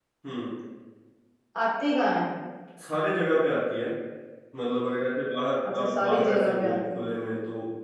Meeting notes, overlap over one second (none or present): present